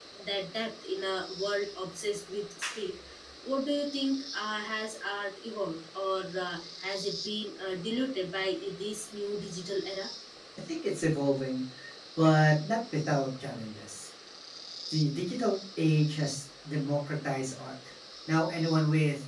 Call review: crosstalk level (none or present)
none